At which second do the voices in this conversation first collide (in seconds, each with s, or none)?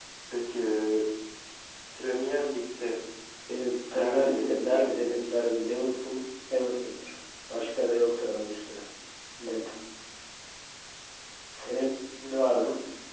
3.9 s